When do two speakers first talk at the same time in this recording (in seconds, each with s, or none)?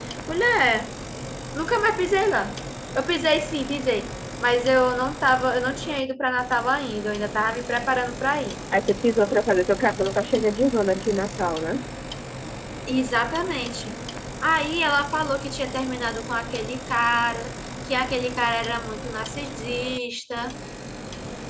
none